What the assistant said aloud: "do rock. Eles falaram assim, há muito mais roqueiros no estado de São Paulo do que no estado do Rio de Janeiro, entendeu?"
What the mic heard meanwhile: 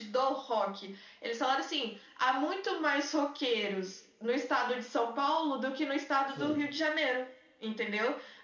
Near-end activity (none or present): present